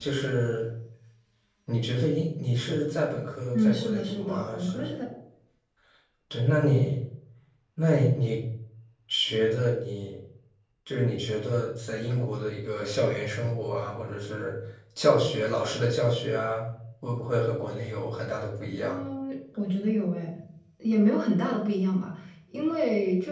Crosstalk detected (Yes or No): Yes